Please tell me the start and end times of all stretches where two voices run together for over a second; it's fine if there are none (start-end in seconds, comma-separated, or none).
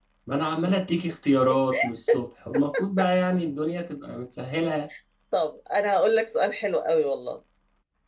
none